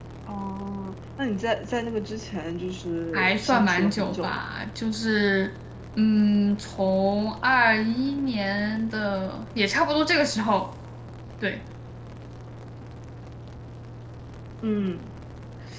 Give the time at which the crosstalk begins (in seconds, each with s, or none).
3.1 s